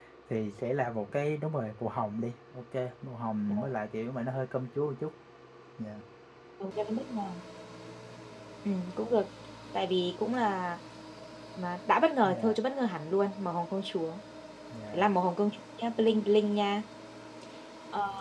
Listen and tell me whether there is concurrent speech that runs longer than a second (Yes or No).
No